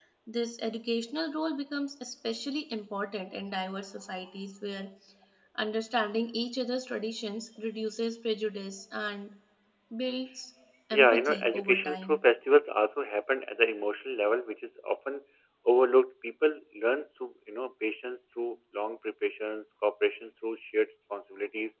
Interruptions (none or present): present